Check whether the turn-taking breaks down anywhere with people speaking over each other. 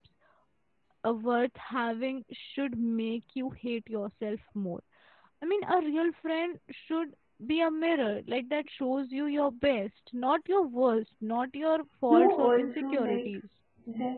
Yes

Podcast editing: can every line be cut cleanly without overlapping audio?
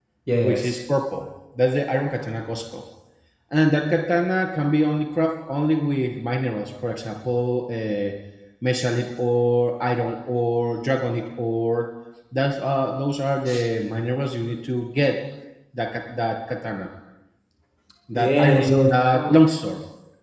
No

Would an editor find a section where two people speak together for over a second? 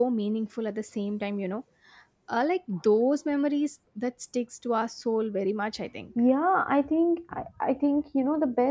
No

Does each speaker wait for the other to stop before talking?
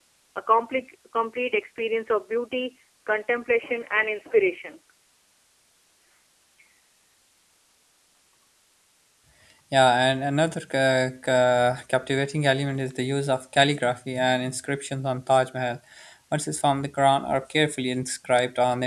Yes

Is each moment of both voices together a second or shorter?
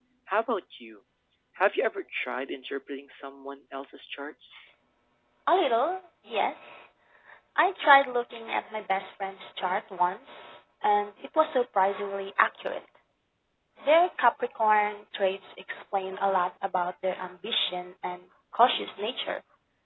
Yes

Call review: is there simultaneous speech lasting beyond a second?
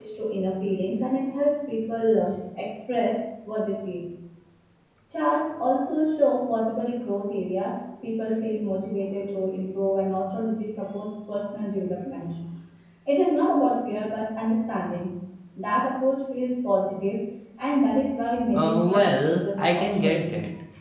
Yes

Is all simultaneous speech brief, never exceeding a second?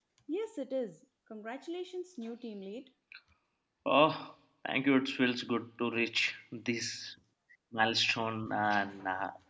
Yes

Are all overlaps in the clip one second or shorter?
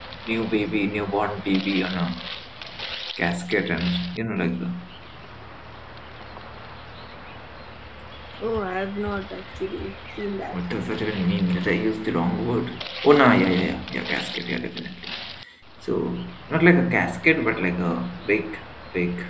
Yes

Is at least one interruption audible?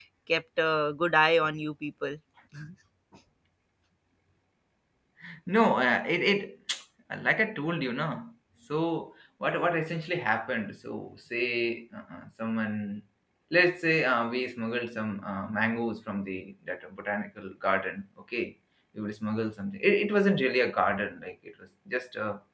No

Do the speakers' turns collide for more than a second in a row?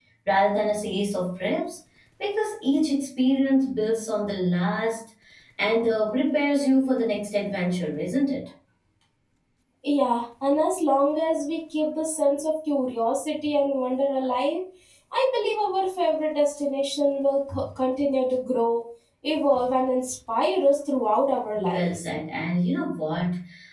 No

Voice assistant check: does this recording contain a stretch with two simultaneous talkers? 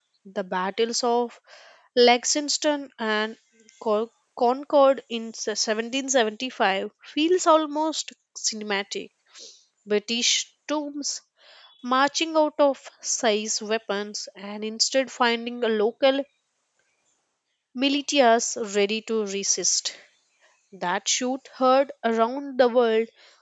No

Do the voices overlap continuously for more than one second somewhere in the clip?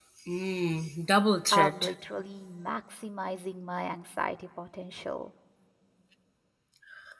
No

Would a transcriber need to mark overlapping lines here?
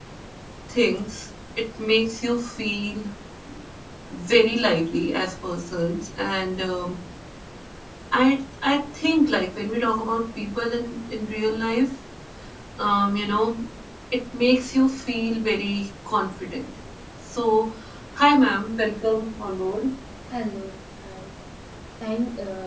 No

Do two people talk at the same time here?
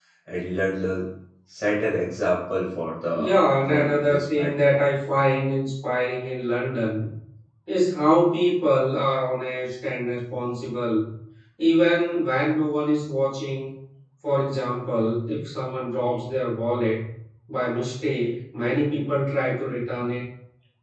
Yes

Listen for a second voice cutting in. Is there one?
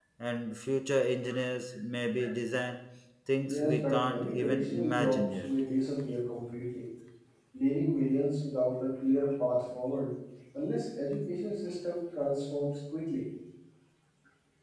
Yes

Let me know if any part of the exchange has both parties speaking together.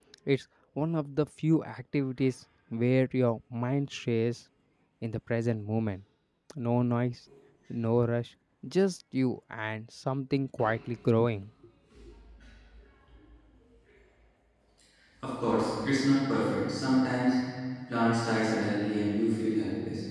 No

